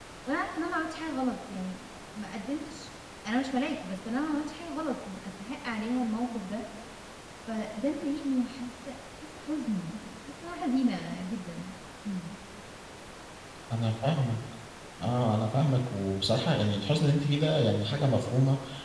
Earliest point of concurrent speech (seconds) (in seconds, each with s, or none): none